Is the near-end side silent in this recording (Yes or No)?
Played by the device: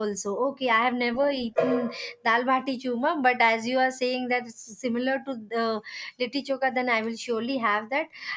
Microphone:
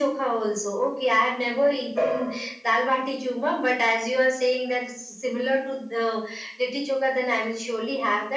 Yes